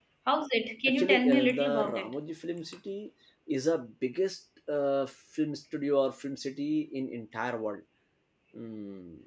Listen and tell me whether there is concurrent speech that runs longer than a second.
Yes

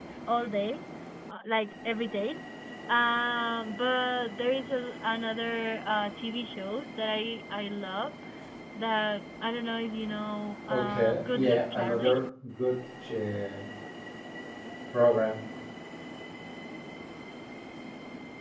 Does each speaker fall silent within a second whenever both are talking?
No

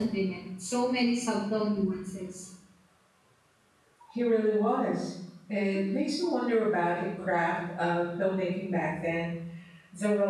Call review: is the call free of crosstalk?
Yes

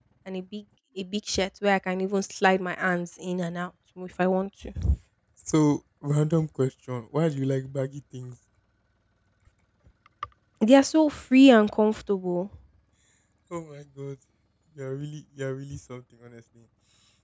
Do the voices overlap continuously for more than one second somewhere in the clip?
No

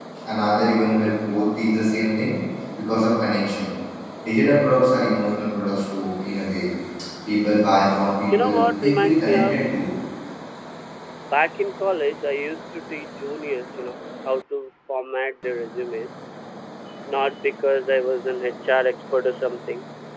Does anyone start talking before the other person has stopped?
Yes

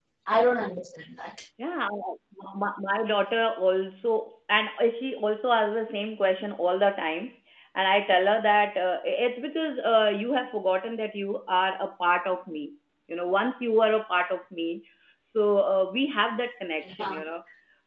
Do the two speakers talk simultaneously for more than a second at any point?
No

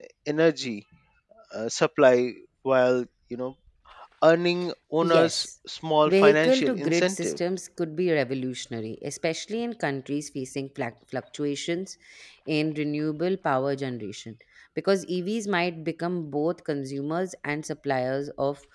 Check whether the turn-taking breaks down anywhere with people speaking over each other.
Yes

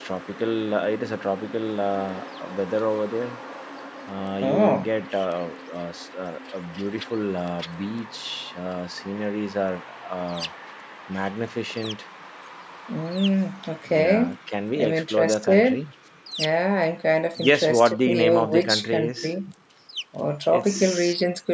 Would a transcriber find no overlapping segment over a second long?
No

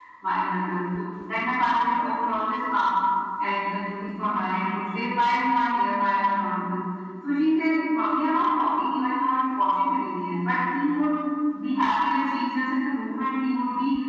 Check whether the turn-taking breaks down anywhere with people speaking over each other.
No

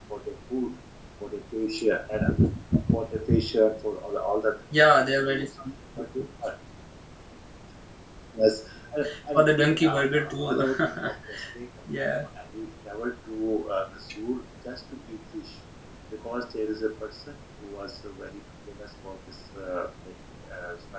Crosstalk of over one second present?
Yes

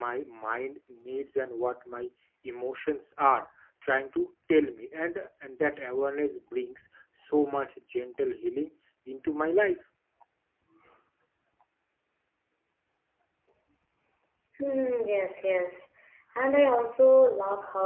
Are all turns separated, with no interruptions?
Yes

